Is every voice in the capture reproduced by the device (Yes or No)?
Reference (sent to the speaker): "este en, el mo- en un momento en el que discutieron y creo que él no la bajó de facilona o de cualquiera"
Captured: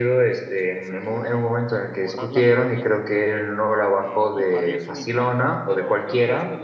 No